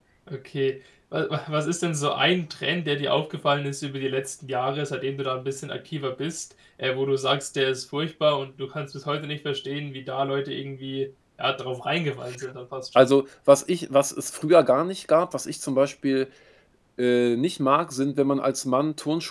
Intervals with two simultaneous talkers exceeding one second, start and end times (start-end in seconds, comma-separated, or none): none